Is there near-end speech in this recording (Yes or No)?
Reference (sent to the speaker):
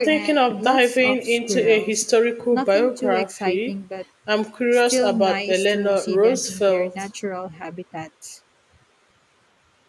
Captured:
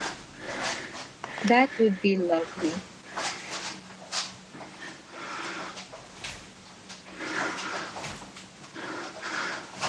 Yes